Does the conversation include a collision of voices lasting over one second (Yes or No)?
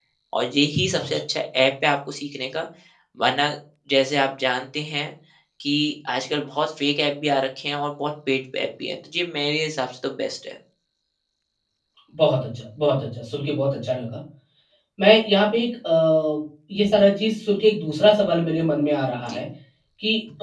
No